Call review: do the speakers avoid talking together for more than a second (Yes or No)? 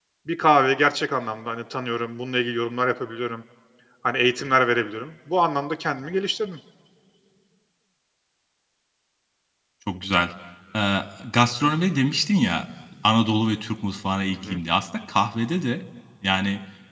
Yes